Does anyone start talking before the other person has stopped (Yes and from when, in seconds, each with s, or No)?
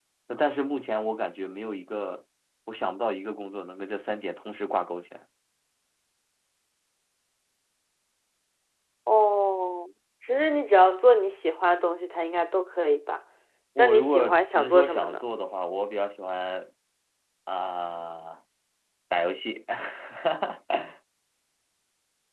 Yes, from 13.8 s